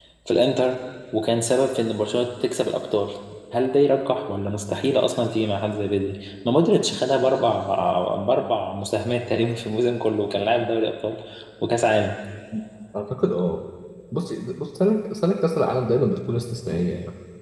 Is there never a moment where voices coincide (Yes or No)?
Yes